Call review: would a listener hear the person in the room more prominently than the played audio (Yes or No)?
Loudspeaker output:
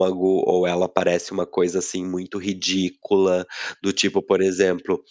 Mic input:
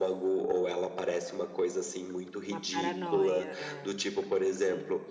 No